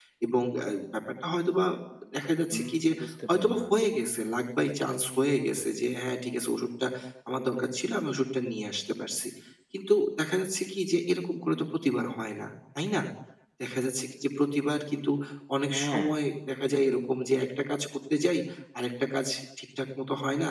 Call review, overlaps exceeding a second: none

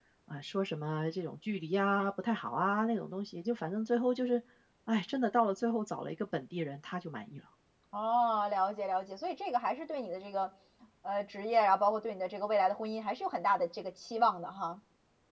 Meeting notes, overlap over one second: none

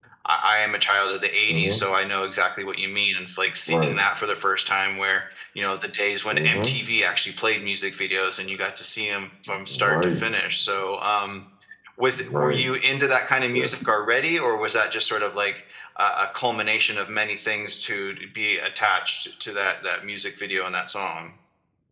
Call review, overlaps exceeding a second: none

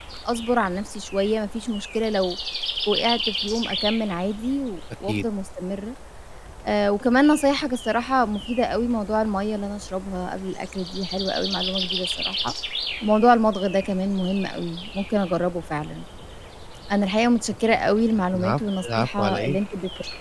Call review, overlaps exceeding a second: present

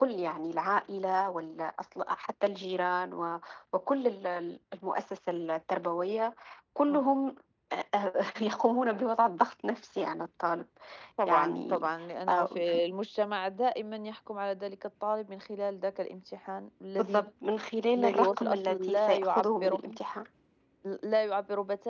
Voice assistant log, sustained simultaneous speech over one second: present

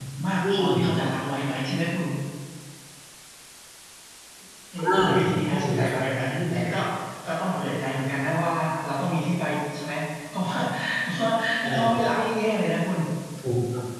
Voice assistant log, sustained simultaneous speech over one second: present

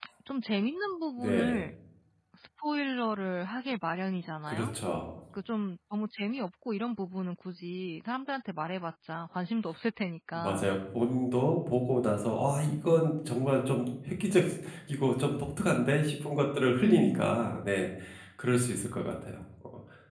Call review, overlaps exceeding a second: none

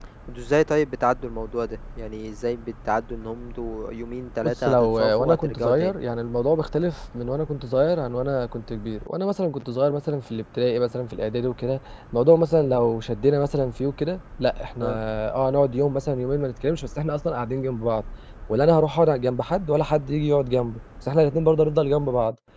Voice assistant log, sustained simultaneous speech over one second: present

